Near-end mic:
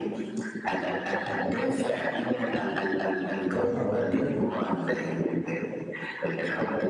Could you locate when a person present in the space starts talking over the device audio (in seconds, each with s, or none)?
3.5 s